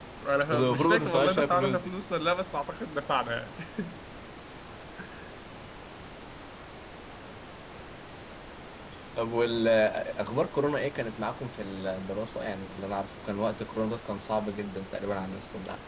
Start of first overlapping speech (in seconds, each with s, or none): 0.5 s